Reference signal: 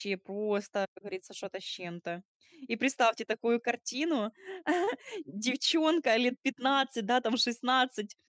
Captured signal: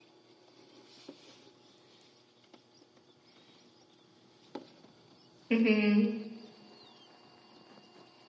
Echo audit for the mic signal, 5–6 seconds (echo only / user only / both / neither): user only